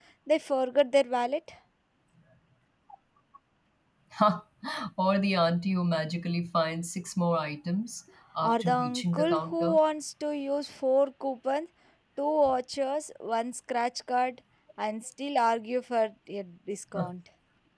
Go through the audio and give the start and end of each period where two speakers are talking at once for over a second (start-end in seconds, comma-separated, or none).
8.4-9.8